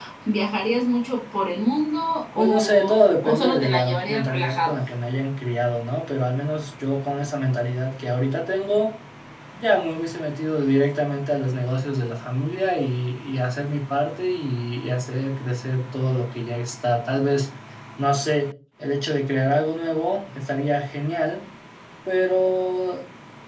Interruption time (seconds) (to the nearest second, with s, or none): 2 s